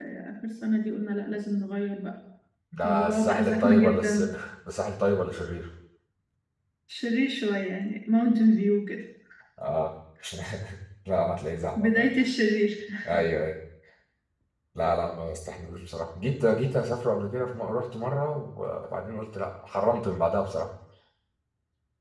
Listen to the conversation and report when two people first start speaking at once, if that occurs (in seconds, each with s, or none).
2.9 s